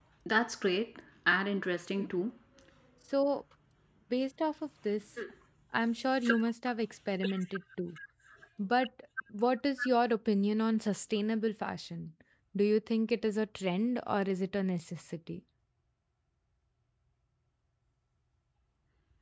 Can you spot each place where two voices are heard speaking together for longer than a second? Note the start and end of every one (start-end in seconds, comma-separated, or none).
none